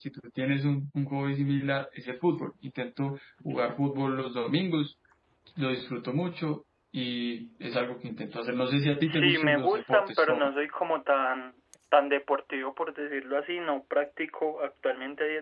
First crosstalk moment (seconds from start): 9.0 s

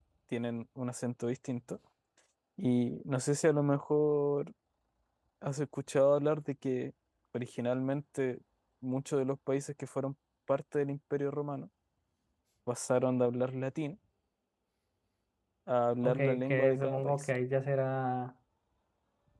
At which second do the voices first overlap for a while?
16.0 s

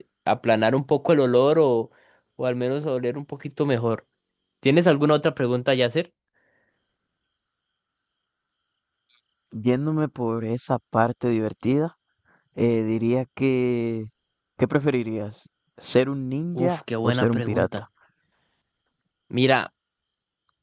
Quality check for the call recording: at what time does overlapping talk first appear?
16.6 s

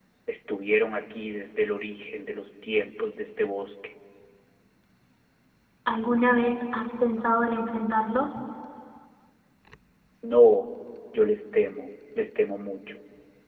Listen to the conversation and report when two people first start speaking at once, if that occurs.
none

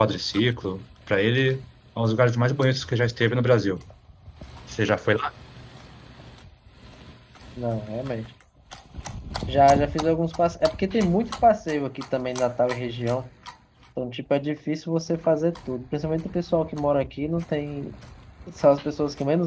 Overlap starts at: none

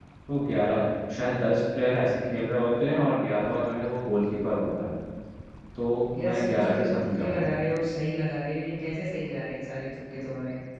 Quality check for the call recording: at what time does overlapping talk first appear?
6.2 s

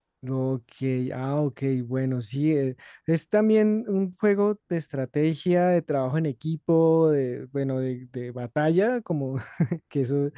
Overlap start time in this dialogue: none

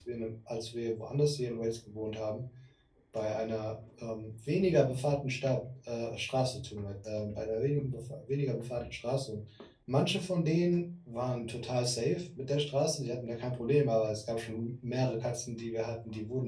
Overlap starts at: none

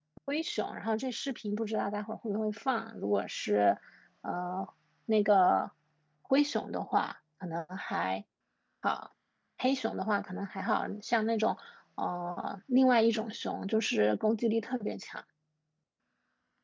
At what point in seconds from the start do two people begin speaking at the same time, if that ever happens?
none

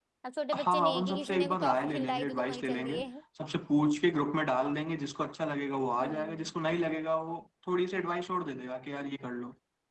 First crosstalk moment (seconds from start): 0.6 s

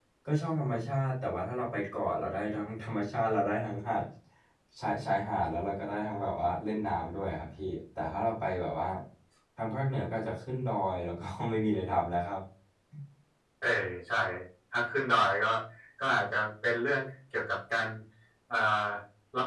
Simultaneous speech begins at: none

